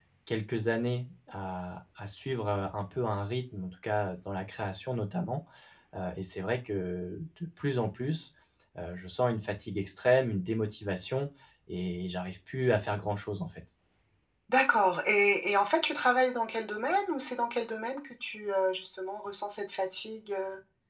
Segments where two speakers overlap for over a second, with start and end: none

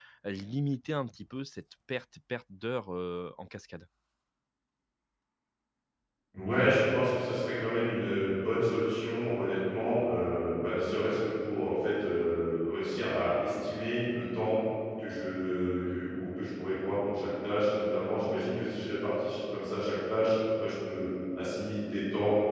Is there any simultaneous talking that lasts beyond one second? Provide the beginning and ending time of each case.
none

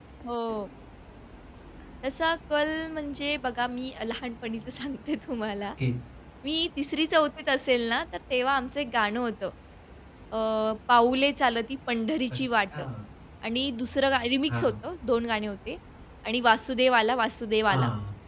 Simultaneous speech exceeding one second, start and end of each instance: none

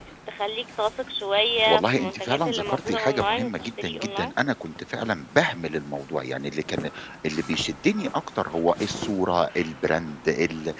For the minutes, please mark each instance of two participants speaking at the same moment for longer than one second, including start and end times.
1.6-4.3

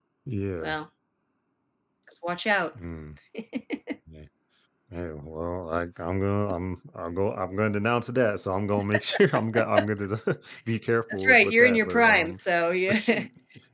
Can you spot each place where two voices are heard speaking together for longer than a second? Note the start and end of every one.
11.1-12.4

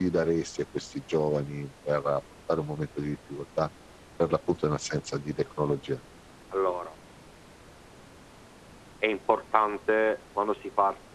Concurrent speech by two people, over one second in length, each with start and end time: none

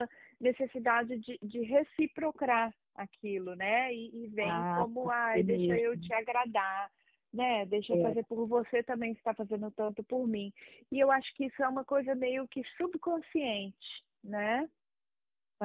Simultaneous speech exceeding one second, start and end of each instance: 4.4-6.1

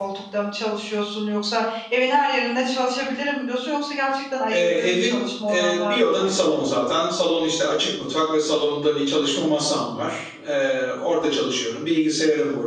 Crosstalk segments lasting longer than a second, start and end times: 4.5-6.6

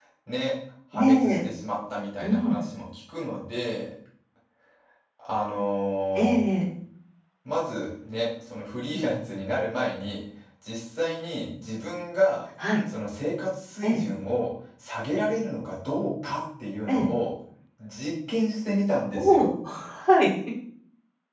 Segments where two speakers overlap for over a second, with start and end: none

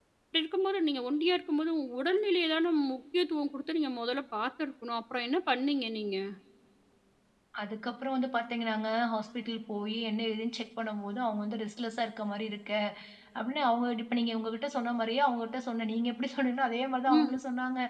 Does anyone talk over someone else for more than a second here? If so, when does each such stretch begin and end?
none

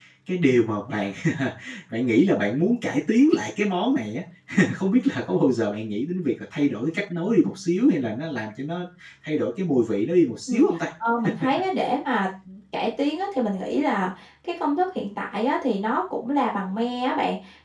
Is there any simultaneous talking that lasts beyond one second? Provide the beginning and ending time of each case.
none

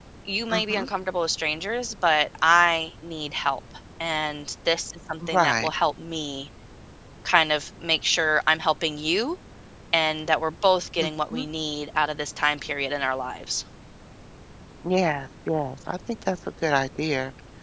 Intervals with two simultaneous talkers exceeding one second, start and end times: none

